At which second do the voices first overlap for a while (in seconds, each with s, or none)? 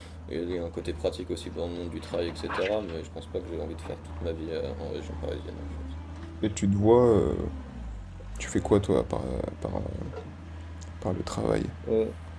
none